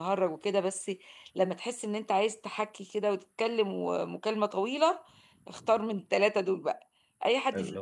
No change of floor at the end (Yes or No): Yes